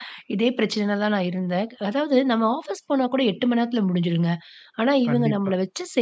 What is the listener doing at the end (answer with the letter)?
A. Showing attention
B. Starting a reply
A